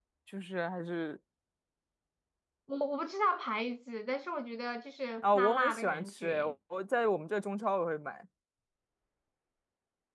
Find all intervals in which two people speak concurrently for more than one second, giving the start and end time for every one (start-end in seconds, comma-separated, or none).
5.2-6.5